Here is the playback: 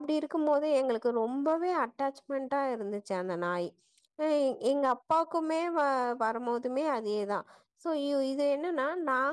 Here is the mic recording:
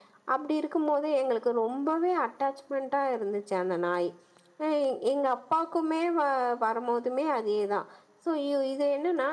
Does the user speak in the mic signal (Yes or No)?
No